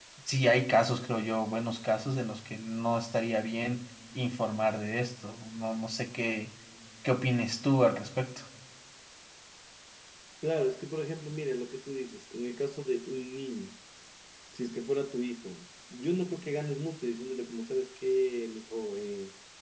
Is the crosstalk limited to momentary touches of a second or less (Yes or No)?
Yes